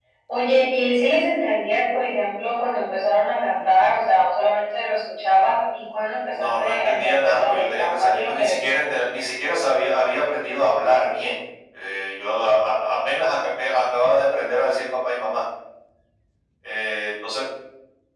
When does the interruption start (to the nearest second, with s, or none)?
6 s